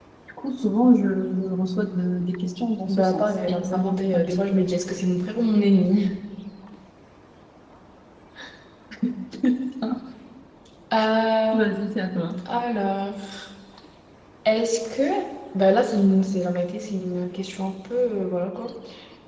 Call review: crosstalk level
present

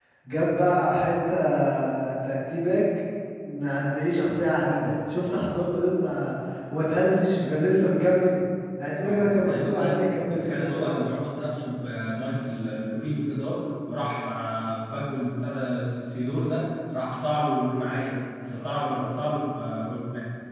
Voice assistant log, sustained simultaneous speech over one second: present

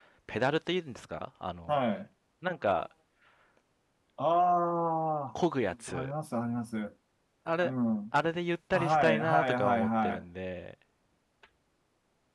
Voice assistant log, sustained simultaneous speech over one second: present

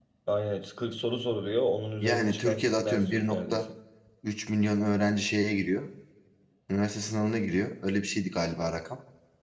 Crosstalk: present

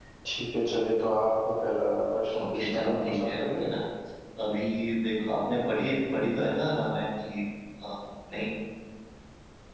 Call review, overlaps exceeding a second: present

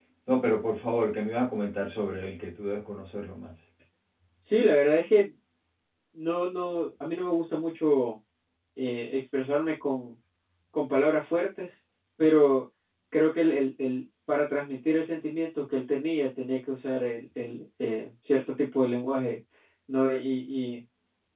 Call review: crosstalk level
none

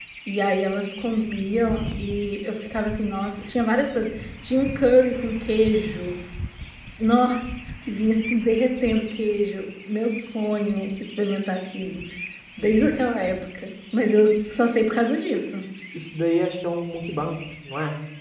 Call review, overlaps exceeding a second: none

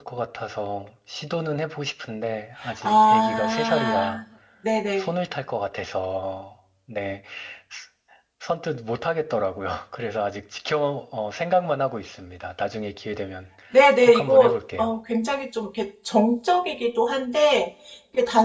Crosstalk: present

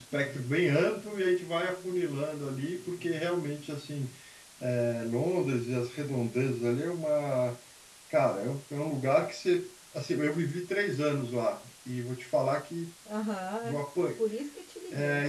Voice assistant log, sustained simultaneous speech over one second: none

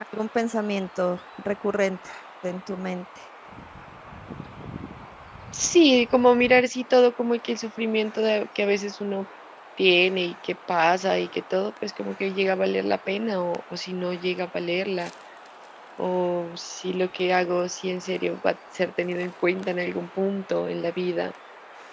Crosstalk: none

